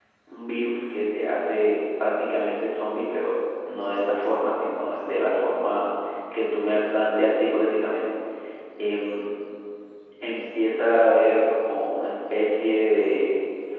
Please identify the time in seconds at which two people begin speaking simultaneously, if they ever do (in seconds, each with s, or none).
none